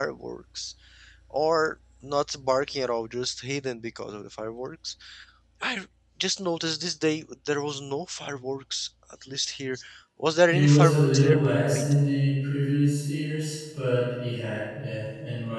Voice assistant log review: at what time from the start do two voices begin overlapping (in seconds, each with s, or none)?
10.5 s